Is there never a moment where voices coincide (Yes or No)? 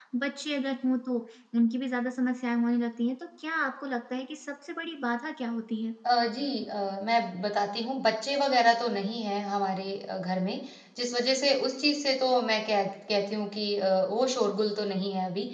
Yes